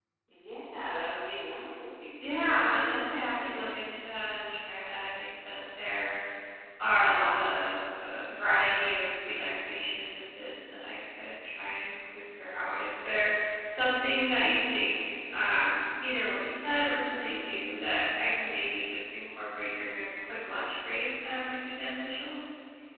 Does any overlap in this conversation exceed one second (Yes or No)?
Yes